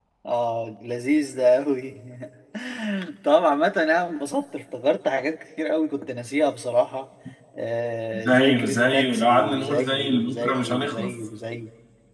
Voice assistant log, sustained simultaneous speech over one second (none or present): present